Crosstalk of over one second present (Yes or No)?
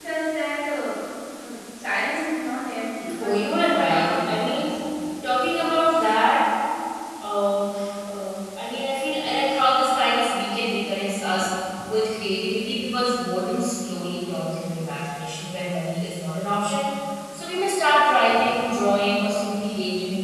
Yes